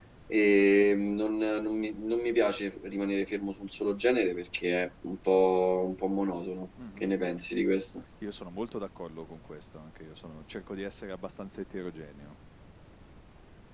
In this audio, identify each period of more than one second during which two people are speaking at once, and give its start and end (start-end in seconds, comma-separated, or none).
none